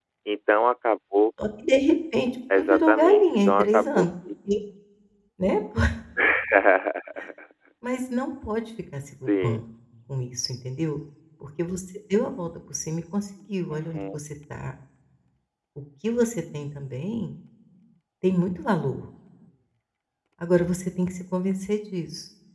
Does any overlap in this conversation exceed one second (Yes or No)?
Yes